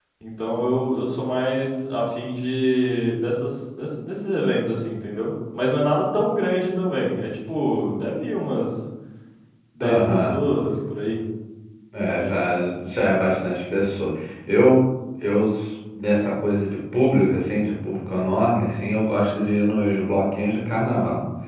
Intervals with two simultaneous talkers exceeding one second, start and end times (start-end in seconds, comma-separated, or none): none